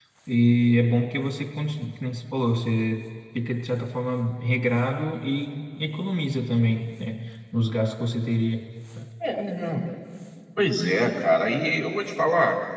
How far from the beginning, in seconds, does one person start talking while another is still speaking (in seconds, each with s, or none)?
none